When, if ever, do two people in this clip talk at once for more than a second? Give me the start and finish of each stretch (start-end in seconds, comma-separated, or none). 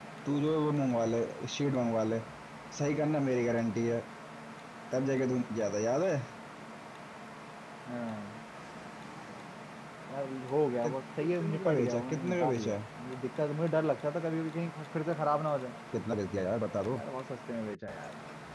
10.8-12.8